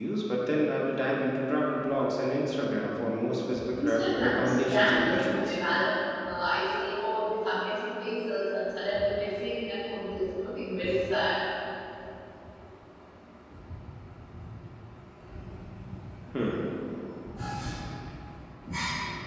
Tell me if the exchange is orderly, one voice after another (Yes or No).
No